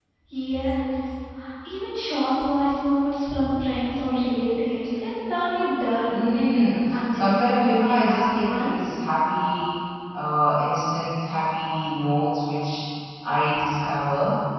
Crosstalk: present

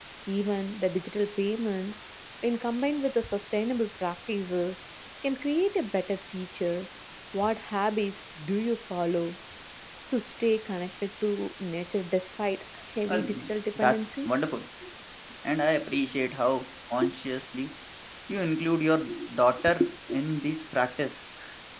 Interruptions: present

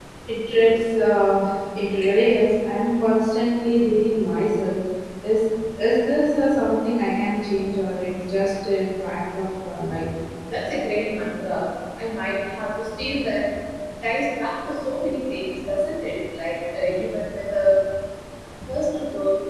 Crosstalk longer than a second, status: none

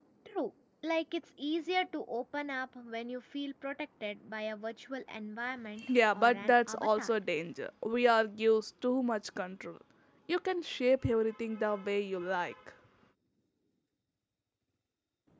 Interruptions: present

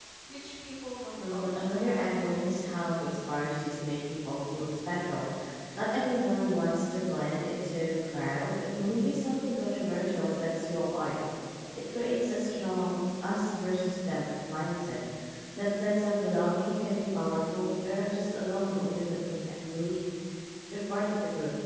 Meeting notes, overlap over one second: present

